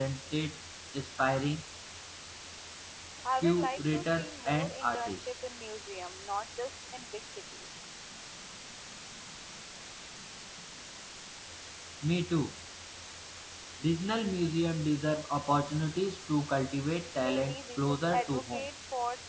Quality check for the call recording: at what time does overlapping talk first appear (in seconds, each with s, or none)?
3.4 s